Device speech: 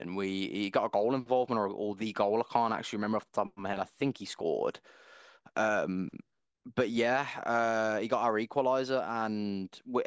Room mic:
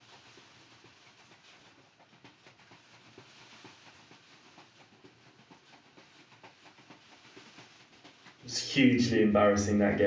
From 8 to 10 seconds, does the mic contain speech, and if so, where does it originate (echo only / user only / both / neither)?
user only